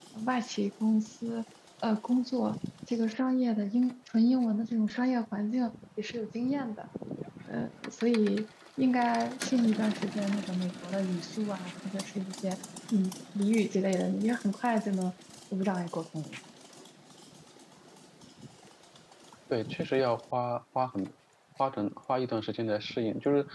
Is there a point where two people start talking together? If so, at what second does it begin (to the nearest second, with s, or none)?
none